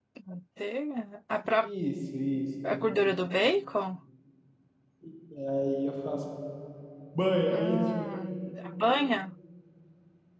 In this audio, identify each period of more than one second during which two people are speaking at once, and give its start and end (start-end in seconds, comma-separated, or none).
none